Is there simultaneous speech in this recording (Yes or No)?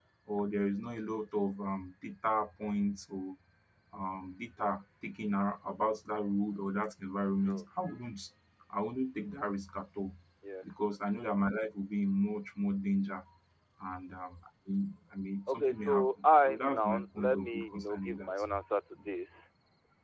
Yes